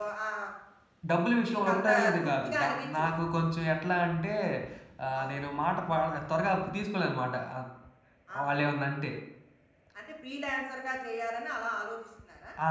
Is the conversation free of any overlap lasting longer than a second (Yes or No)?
No